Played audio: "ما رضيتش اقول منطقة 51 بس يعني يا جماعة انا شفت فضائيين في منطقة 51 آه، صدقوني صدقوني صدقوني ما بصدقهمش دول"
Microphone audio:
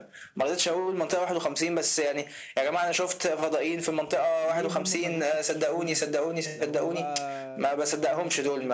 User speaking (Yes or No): Yes